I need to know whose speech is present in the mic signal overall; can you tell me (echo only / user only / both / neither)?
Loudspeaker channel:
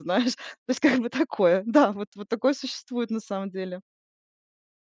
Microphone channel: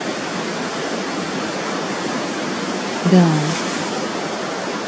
user only